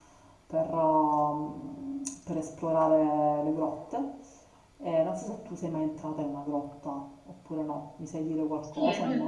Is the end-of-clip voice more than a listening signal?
Yes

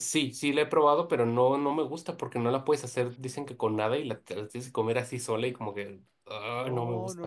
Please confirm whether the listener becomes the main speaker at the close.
Yes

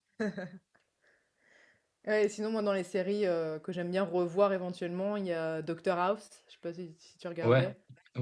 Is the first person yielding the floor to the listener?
Yes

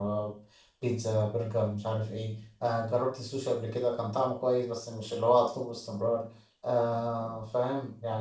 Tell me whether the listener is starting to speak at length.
No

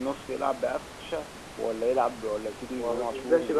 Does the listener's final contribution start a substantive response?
Yes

